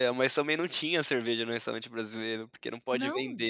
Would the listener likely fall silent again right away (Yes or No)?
Yes